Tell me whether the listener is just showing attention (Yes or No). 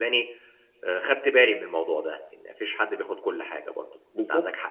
No